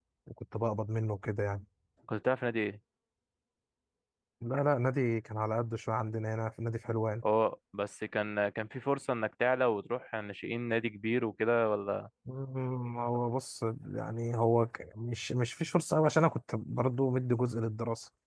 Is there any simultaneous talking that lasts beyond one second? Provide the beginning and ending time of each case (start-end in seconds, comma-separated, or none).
none